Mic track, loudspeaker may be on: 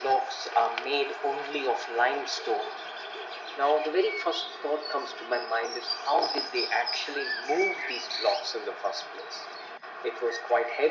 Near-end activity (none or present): none